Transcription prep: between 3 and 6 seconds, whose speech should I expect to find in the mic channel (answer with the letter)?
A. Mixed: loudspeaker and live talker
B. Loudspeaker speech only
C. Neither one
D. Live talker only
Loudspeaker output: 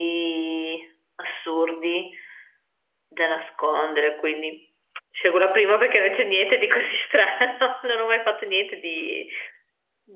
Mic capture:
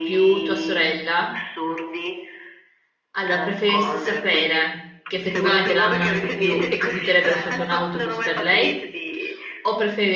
A